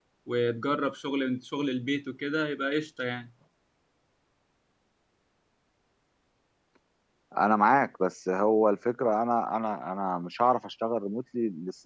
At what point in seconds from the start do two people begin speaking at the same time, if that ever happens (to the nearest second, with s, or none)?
none